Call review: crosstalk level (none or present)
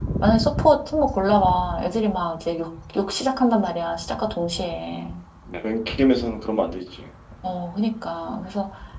none